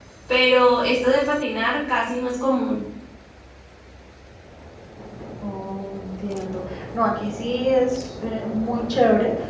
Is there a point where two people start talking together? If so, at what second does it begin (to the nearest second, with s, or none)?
none